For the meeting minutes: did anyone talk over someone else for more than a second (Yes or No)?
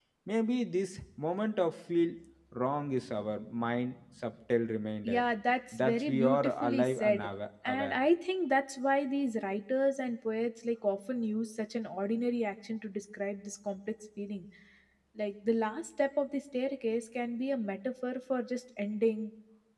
Yes